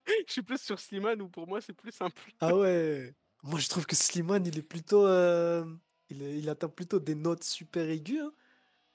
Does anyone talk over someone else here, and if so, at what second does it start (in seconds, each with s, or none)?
none